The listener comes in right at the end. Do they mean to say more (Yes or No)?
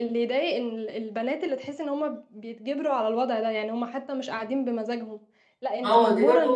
Yes